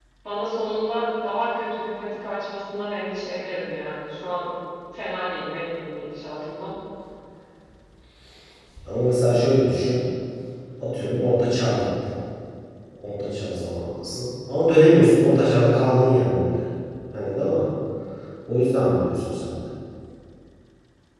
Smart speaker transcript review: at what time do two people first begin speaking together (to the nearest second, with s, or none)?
none